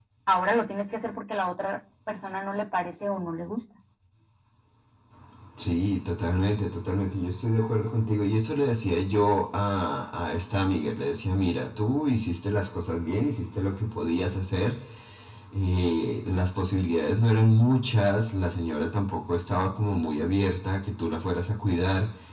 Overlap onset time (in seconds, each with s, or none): none